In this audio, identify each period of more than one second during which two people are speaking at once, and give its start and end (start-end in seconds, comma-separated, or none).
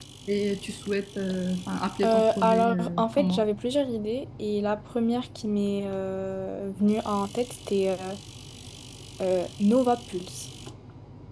2.0-3.5